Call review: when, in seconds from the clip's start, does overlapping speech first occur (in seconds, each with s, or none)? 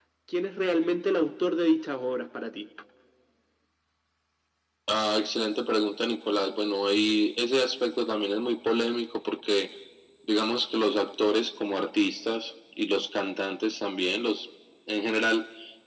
none